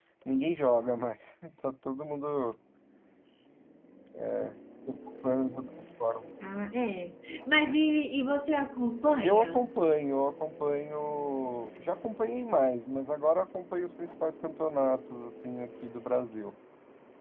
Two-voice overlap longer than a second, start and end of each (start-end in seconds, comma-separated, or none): none